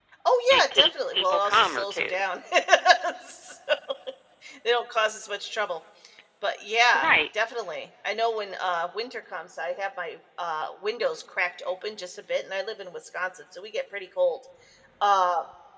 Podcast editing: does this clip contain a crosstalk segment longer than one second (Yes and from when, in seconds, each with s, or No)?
Yes, from 0.5 s